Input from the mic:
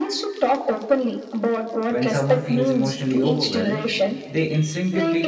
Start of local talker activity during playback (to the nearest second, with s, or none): 2 s